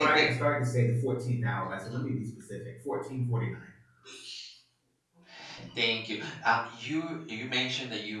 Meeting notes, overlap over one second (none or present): none